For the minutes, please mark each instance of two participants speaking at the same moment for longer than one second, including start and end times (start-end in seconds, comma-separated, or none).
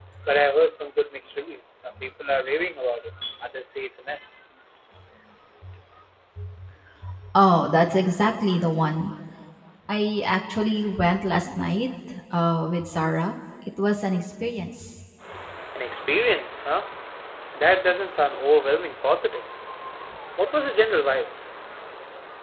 none